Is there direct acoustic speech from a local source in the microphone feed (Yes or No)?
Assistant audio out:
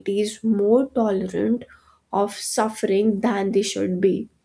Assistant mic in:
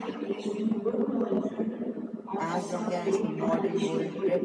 Yes